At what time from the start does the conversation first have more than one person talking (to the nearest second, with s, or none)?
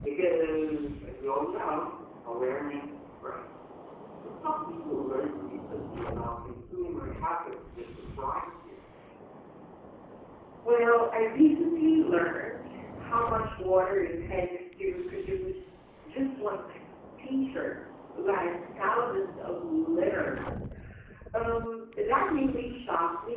none